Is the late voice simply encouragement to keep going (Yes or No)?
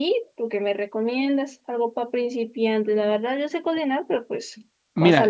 No